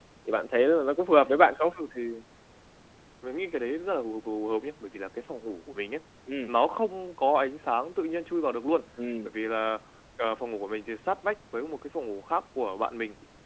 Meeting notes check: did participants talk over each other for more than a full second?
No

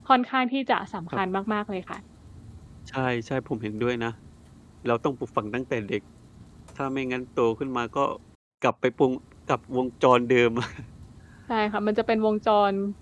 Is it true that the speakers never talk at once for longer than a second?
Yes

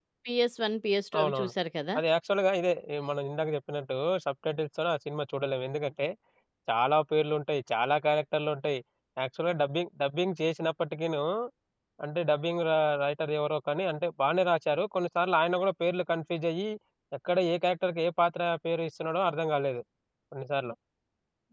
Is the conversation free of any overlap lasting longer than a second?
Yes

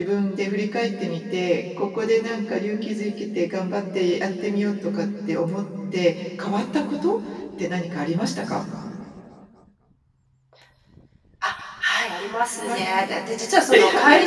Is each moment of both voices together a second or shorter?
Yes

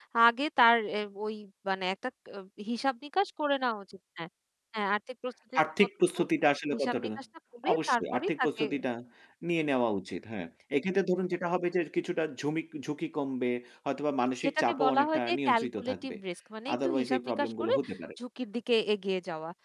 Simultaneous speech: Yes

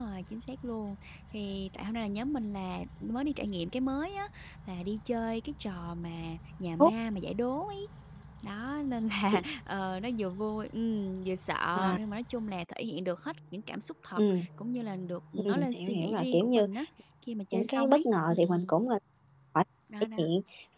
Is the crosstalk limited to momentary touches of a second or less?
No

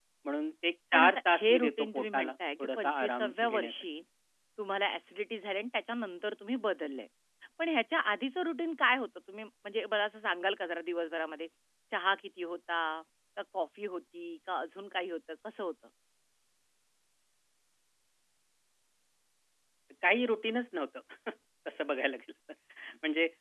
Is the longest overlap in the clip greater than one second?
Yes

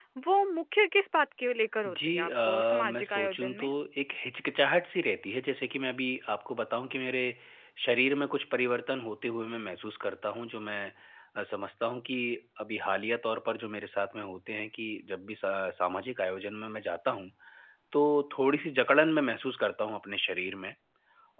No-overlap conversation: No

